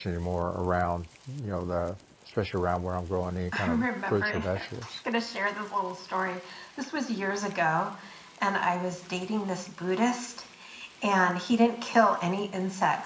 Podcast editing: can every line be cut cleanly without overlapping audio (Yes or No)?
No